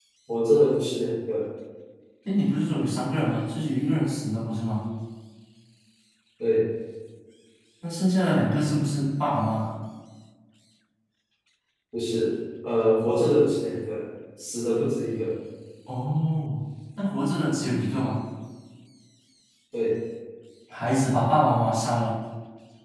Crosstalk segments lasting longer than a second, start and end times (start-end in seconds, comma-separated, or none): none